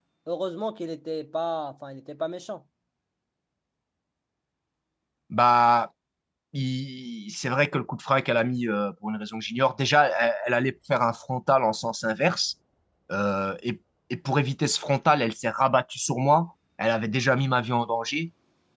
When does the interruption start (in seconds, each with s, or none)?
none